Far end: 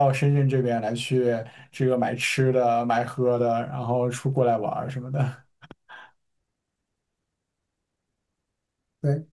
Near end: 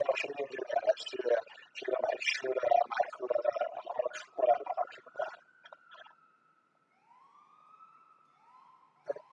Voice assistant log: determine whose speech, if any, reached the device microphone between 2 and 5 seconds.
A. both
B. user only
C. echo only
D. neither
C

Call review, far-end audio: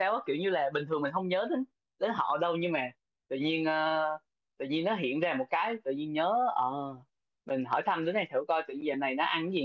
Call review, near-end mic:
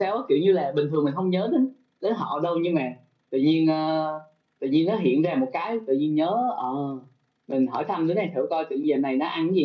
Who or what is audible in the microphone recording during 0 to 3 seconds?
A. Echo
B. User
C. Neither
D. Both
A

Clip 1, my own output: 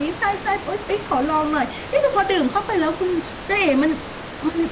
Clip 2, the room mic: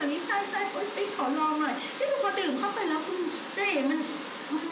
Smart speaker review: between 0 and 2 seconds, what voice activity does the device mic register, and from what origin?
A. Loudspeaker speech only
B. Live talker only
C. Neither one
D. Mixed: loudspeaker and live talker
A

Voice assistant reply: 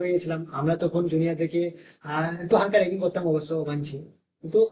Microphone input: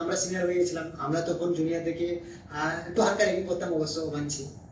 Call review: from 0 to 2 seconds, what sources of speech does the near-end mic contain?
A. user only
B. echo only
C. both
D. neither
B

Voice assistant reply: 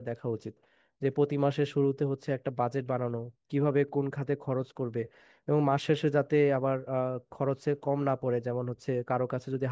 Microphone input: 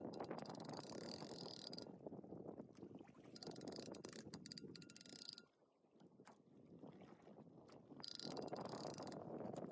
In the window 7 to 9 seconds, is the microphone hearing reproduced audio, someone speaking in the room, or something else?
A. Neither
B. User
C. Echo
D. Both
A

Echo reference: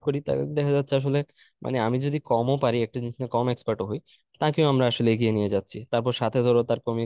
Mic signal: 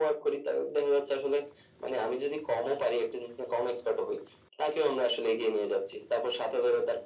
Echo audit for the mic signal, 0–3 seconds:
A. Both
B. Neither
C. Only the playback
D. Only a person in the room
C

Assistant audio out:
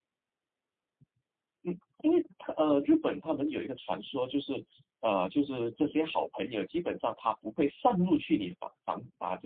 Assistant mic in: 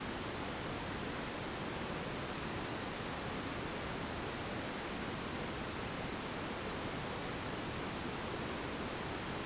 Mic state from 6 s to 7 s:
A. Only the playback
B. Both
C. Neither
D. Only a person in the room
C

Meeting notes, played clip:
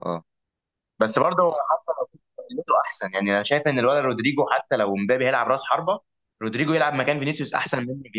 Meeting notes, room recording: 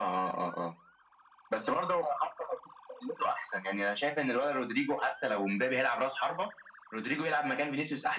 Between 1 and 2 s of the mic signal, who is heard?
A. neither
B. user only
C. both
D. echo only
D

